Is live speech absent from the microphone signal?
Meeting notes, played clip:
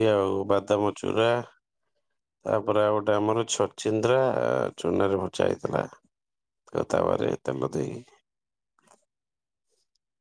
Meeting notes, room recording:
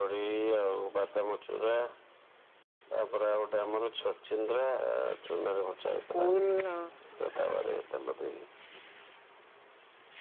No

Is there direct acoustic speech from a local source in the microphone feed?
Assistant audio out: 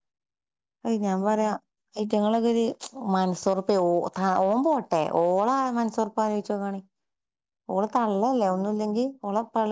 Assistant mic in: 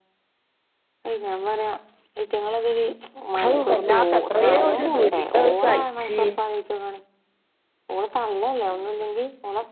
Yes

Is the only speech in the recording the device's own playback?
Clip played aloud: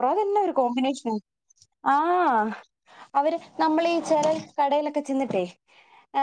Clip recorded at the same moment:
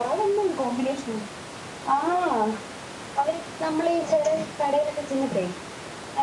Yes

